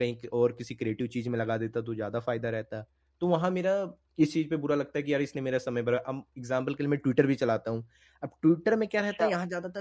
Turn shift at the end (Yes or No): No